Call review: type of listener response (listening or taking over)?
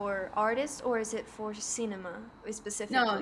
taking over